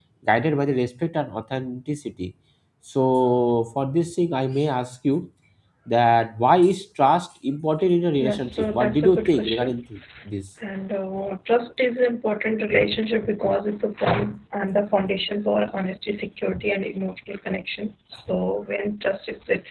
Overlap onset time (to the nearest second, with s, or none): 8 s